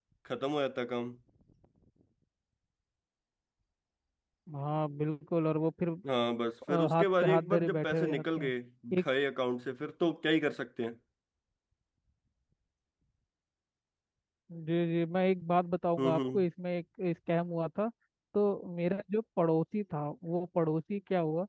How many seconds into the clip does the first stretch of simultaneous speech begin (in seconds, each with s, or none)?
6.7 s